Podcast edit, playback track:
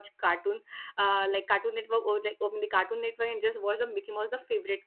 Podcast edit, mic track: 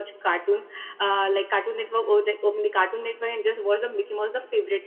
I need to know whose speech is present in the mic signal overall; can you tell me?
echo only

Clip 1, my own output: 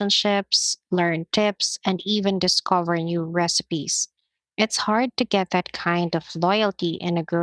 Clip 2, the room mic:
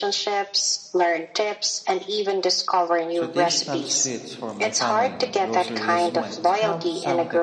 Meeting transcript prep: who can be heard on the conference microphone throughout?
both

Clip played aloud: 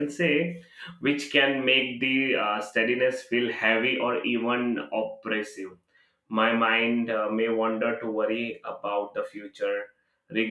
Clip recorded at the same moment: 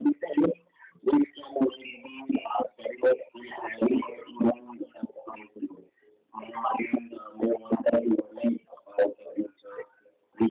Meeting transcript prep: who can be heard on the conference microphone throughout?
echo only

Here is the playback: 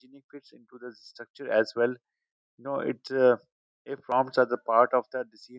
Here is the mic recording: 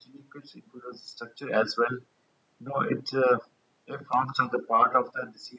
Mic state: echo only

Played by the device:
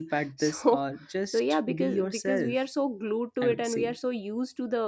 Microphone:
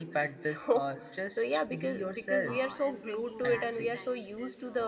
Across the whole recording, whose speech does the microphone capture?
both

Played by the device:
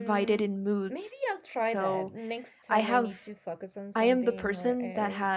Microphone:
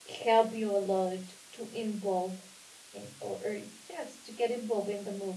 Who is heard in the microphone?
user only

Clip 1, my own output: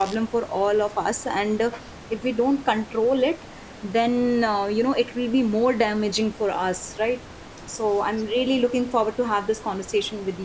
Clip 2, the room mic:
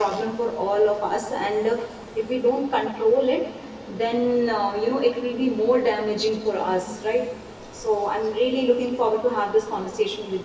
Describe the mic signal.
echo only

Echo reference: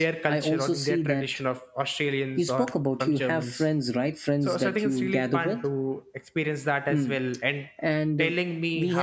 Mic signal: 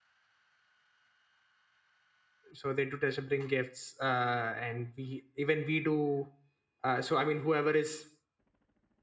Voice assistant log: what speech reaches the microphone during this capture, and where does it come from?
user only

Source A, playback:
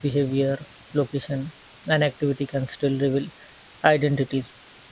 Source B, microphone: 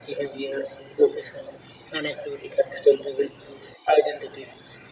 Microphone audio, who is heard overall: echo only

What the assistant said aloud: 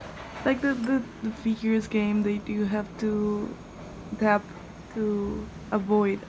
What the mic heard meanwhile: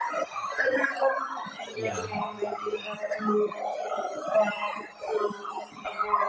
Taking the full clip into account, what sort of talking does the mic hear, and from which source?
both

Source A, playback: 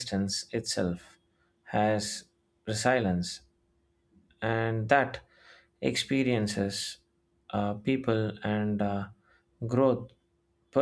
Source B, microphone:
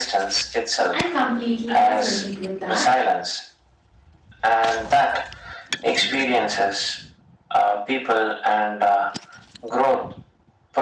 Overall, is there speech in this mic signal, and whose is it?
both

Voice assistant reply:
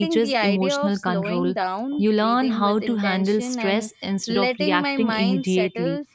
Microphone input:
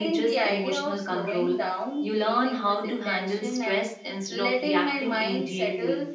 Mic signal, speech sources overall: echo only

